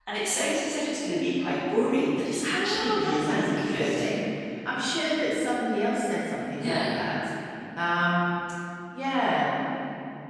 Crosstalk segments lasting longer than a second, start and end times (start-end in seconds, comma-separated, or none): 2.5-4.0